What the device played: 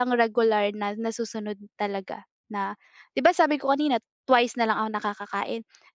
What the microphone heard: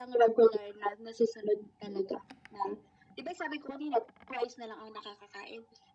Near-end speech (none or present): none